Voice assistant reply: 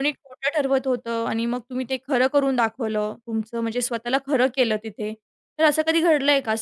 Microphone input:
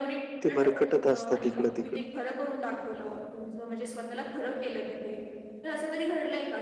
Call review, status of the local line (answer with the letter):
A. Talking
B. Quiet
A